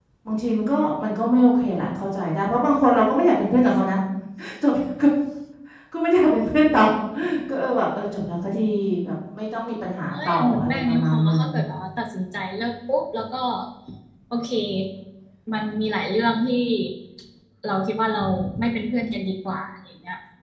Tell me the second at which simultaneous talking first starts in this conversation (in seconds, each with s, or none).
10.1 s